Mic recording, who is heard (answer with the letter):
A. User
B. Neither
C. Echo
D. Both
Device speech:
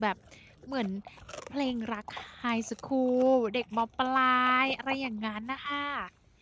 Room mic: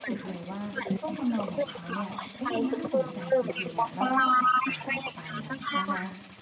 D